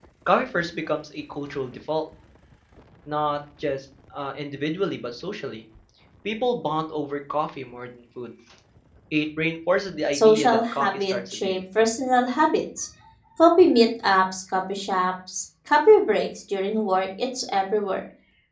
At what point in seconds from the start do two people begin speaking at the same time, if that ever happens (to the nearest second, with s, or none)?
10 s